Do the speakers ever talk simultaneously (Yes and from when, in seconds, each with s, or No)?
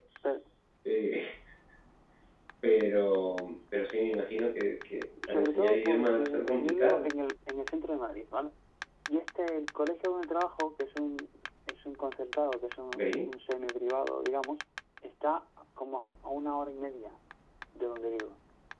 Yes, from 5.3 s